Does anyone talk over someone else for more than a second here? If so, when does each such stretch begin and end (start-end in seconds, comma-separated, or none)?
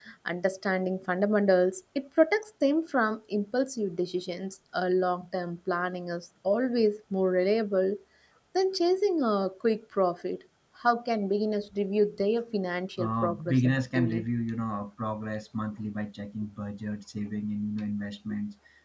13.0-14.2